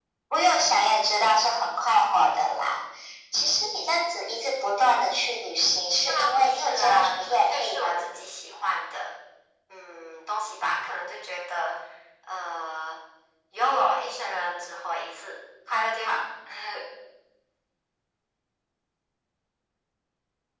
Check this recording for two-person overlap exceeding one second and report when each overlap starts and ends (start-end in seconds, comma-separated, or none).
6.1-8.0